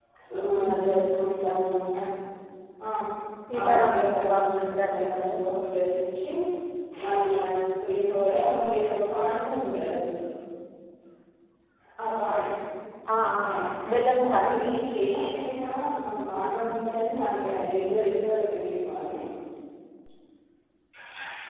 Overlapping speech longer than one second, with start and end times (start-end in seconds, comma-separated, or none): 3.6-5.4